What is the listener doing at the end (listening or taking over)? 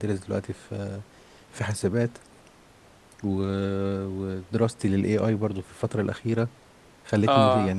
taking over